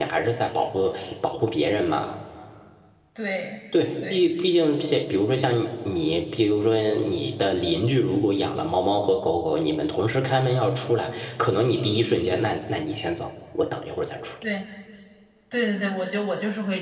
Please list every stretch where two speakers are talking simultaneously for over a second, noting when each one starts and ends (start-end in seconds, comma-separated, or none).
none